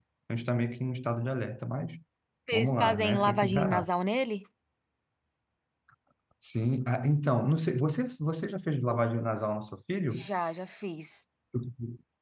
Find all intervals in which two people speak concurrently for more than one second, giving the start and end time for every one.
2.5-3.9

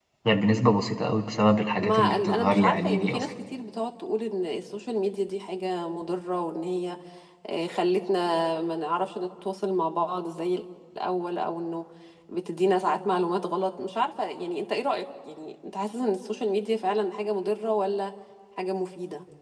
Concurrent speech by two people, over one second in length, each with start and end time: 1.8-3.3

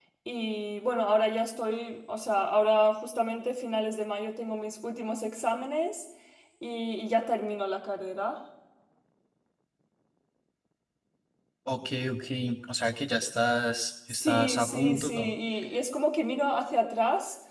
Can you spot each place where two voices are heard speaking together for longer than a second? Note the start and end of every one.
14.1-15.3

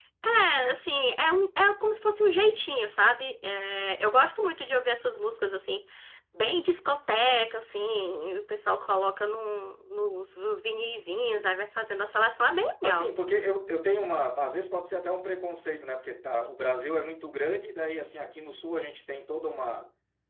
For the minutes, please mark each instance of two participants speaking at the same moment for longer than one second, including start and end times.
none

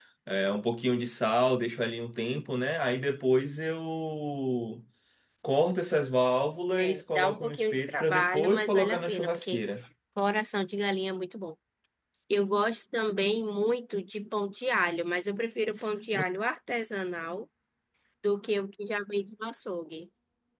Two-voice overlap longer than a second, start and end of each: 6.8-9.6

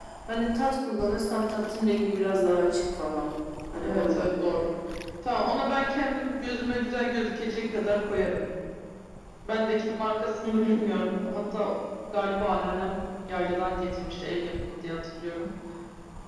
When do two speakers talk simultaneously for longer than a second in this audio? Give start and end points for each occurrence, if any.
none

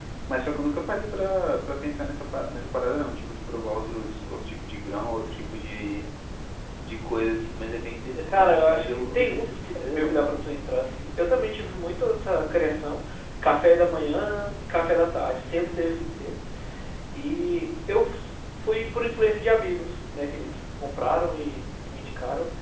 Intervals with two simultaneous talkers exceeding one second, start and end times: 8.3-10.4

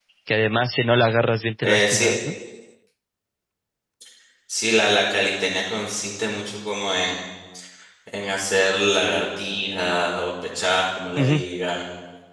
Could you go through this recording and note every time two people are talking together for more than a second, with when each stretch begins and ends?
none

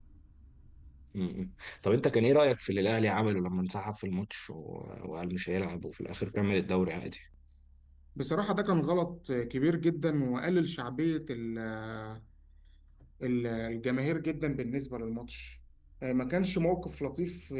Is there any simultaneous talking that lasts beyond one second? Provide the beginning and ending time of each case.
none

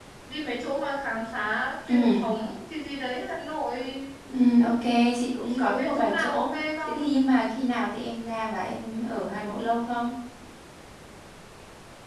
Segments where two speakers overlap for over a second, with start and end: 5.5-7.0

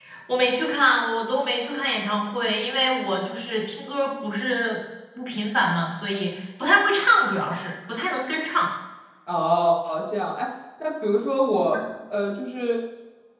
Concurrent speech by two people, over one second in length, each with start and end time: none

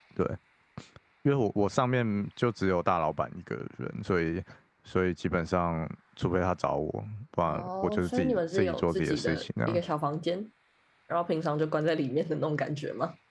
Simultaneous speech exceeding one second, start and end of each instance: 7.5-9.8

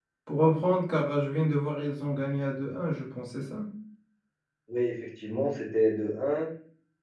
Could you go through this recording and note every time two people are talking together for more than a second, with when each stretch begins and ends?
none

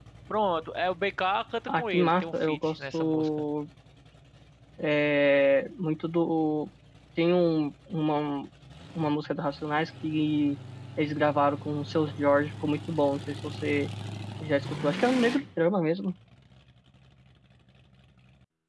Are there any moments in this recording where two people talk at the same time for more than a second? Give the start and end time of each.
1.7-3.3

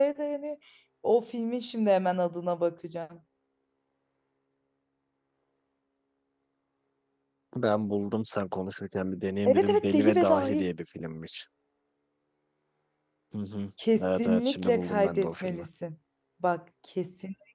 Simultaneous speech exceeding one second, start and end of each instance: 9.4-10.7, 13.9-15.6

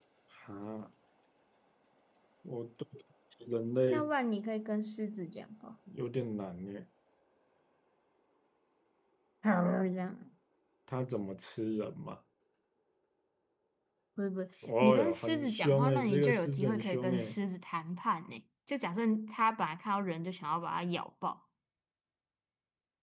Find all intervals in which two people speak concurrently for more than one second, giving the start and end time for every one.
14.8-17.4

